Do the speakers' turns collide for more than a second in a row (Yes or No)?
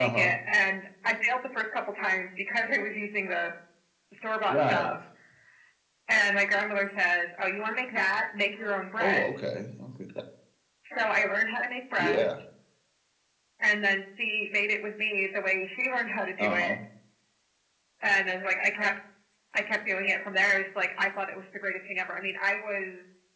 No